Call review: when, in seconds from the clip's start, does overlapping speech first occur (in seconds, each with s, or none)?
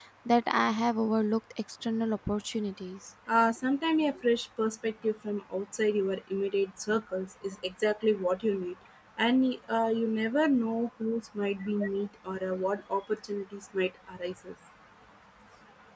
none